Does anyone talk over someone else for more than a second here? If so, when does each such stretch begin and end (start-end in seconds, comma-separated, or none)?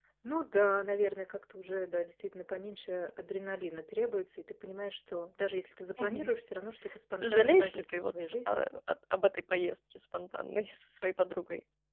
7.2-8.7